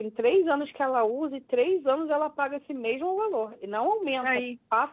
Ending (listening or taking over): listening